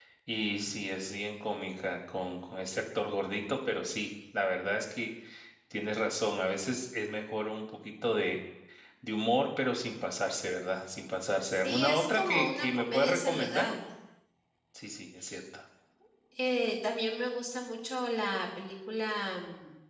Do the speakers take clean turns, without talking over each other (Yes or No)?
No